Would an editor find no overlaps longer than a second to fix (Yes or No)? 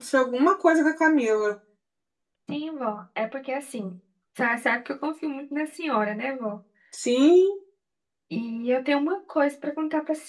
Yes